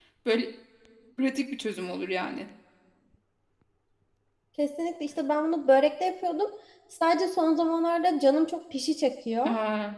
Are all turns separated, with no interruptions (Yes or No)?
Yes